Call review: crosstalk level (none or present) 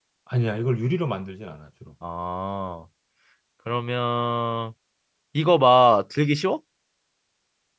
none